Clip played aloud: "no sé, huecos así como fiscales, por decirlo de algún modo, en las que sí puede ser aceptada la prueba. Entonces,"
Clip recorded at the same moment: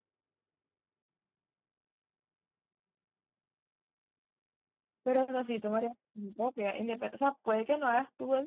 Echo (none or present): none